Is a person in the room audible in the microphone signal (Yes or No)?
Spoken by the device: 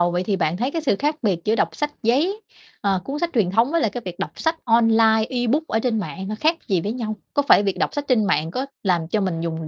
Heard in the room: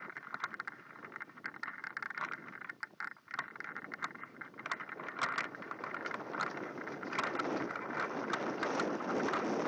No